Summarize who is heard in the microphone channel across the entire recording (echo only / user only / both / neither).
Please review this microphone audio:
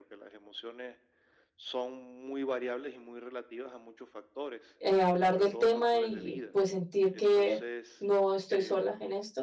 both